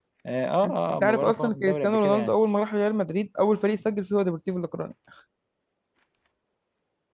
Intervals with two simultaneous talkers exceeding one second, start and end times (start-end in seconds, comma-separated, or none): 0.6-2.3